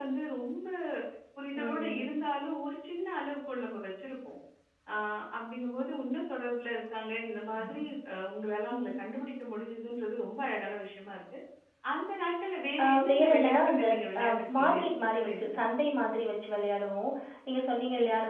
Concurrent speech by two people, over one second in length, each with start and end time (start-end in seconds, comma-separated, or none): 12.8-15.6